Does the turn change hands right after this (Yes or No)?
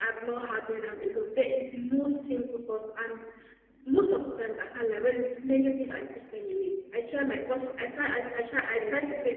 No